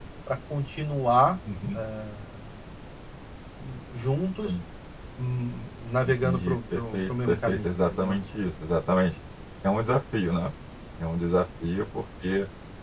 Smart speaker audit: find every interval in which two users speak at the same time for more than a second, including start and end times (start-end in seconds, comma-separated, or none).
6.0-8.2